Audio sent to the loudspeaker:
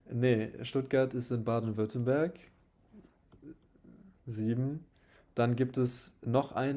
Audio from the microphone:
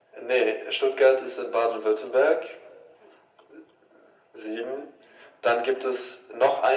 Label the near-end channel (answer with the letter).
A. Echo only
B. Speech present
A